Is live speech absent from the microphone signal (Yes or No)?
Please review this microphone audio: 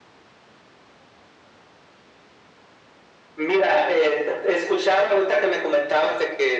Yes